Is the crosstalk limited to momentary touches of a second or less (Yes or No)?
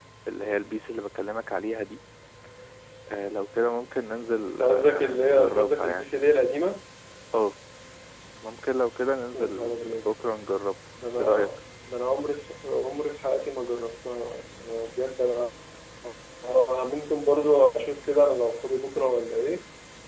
No